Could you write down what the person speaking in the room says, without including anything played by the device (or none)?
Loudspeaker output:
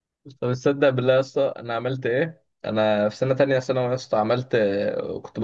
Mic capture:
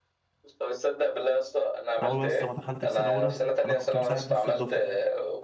انا اول بس ما دخلت في سنه اولى انا كنت مصاحب نص الدفعه